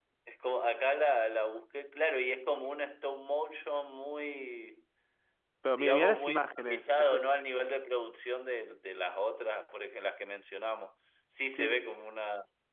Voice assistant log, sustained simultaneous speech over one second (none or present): present